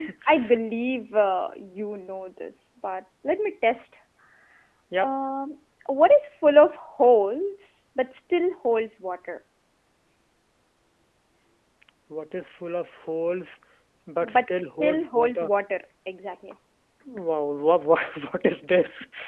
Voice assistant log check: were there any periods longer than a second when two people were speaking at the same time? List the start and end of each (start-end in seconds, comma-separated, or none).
14.2-15.5